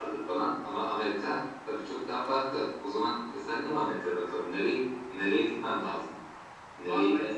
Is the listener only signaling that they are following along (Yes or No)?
No